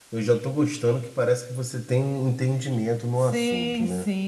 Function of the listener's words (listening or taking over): taking over